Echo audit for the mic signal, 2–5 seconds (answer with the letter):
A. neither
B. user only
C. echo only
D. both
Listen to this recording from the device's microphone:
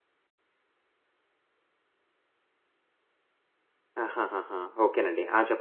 B